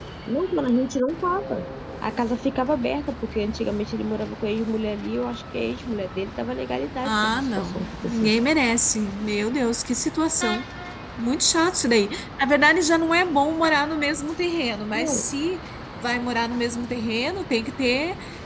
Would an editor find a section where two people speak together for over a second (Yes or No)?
Yes